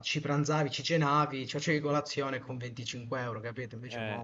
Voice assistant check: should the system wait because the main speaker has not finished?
No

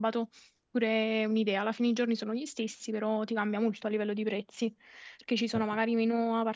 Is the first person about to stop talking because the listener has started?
No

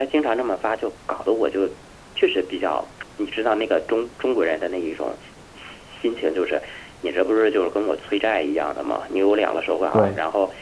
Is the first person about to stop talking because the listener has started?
No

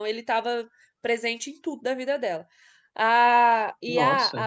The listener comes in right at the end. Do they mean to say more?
No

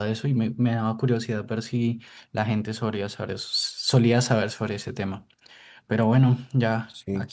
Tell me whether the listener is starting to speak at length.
No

